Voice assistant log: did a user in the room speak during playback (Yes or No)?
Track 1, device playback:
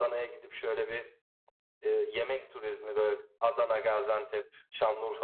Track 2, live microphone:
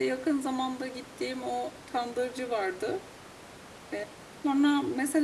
Yes